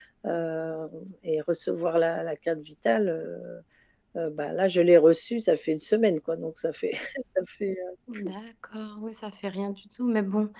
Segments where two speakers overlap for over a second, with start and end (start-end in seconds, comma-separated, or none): none